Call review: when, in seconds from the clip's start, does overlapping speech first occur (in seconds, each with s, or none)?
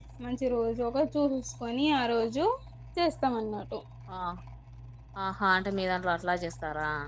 none